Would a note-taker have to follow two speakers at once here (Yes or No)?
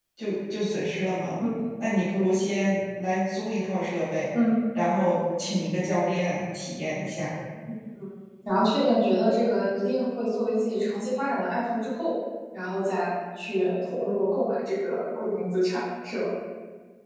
No